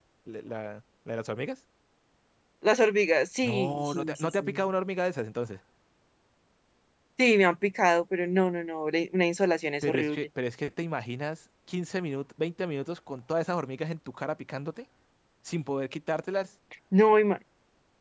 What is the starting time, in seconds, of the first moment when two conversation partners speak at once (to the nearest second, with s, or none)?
3 s